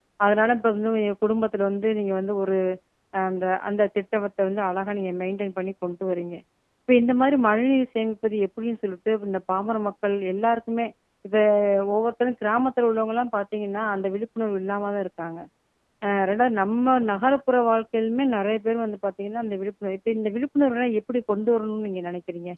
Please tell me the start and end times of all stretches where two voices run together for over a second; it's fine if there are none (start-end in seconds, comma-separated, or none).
none